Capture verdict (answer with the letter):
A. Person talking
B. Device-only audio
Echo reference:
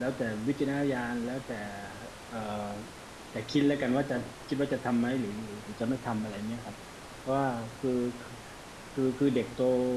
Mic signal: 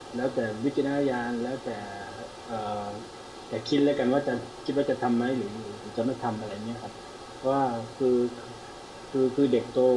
B